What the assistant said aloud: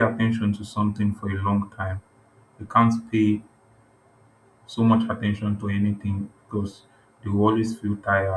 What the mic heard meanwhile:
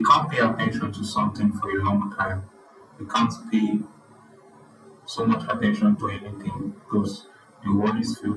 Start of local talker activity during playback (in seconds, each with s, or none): none